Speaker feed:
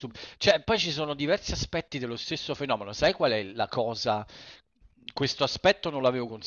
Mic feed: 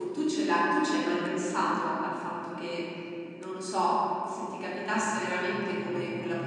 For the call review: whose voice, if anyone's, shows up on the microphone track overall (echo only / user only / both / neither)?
user only